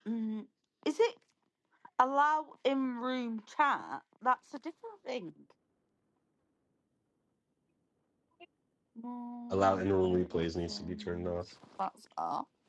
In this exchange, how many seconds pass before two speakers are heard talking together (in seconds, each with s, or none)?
9.5 s